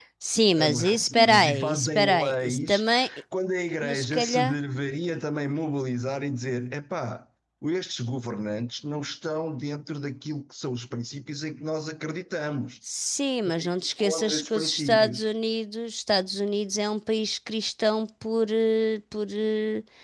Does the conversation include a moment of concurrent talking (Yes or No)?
Yes